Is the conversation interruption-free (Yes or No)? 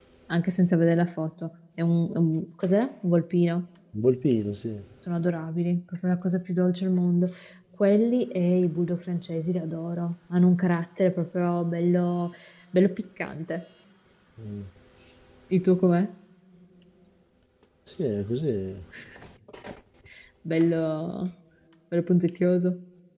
Yes